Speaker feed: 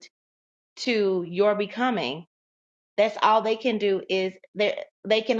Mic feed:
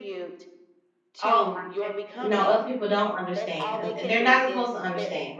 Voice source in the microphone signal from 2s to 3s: both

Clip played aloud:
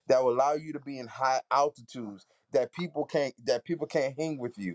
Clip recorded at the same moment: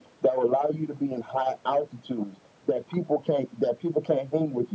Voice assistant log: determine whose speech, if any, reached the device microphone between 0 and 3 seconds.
echo only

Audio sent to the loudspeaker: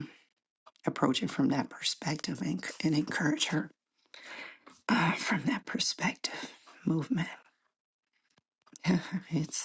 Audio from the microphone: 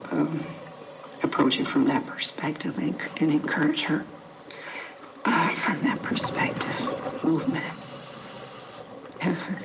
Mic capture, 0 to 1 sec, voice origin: echo only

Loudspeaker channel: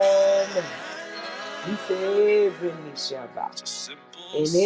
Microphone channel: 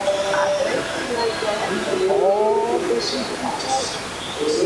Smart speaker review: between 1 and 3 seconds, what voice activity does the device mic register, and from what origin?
both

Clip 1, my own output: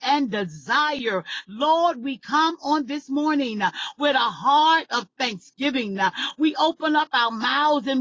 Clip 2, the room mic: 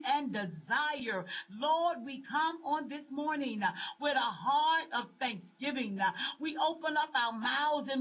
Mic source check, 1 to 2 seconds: echo only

